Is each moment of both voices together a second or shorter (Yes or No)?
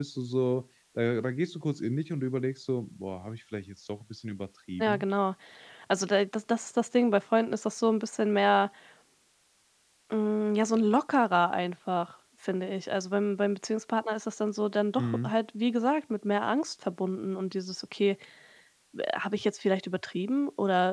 Yes